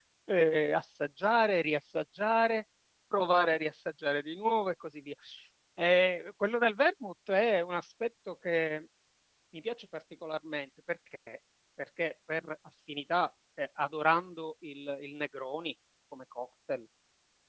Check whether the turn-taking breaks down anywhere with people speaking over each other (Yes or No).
No